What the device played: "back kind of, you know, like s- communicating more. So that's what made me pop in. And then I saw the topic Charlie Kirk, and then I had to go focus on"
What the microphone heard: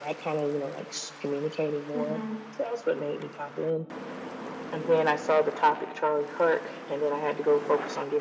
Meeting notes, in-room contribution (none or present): present